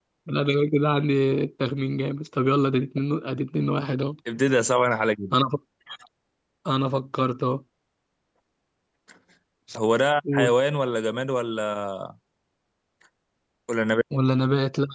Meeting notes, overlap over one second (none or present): none